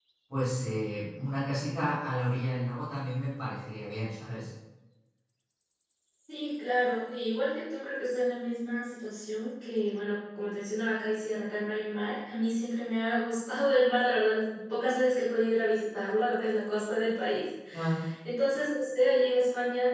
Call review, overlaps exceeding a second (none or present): none